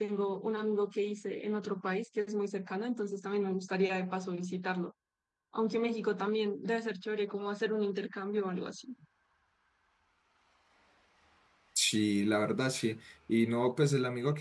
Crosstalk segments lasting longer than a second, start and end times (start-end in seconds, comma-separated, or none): none